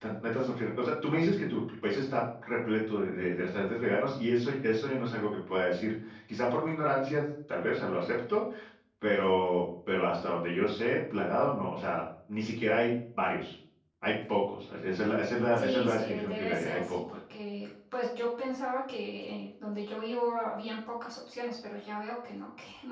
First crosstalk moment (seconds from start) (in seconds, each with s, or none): 15.6 s